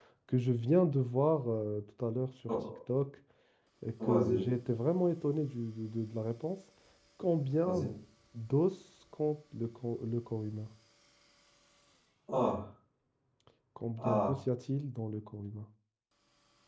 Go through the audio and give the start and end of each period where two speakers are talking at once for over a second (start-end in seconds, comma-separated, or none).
none